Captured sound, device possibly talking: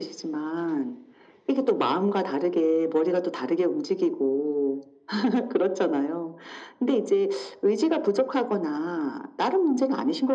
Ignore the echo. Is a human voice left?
No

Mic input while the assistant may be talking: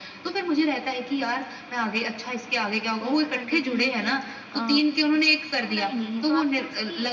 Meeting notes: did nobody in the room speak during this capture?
No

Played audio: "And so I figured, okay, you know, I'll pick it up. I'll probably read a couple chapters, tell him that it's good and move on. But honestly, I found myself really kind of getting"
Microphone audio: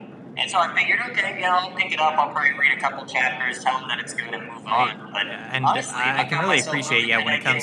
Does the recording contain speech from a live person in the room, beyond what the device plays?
Yes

